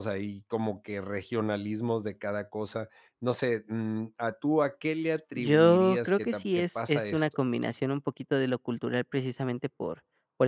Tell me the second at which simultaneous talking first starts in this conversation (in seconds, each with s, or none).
5.3 s